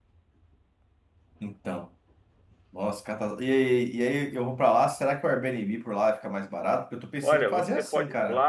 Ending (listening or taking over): taking over